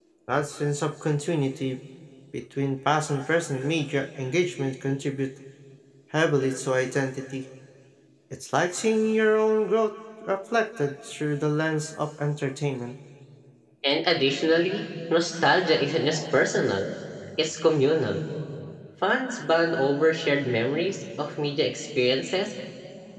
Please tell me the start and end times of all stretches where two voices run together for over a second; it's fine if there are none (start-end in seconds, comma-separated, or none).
none